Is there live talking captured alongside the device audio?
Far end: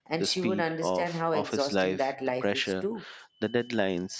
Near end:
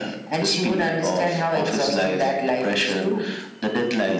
No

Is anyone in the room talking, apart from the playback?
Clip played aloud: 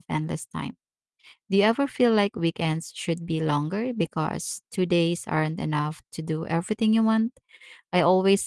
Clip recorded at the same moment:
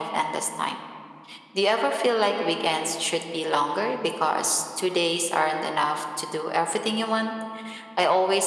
No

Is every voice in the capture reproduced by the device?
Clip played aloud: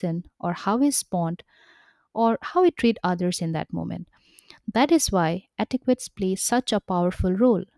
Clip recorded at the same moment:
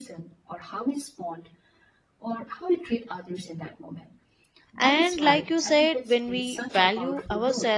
No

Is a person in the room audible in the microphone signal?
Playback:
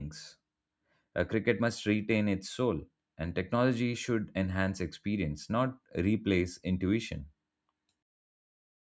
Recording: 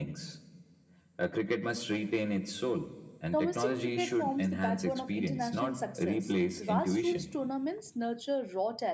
Yes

